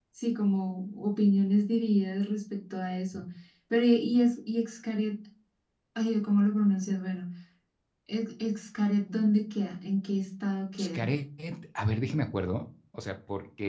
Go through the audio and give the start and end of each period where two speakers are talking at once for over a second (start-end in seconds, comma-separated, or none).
none